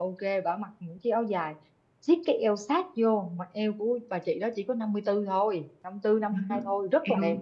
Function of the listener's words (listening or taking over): taking over